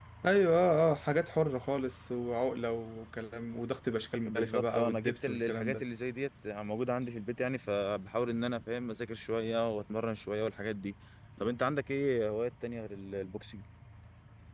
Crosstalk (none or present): present